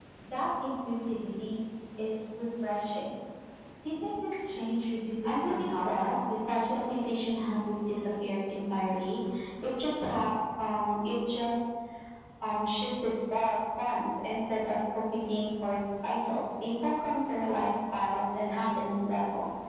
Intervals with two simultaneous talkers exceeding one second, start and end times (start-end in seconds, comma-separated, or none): 5.2-6.9